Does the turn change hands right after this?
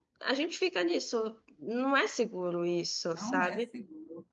Yes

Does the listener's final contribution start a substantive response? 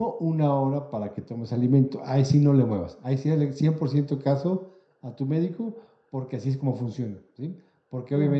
No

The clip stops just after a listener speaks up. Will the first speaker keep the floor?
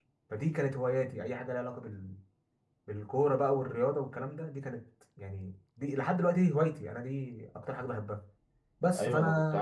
No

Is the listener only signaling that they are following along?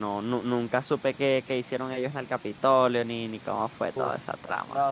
No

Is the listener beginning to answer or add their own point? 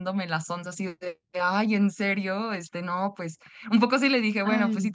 No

